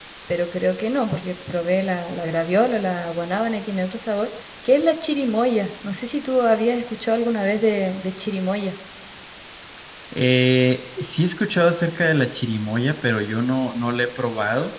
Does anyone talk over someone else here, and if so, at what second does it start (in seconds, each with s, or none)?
none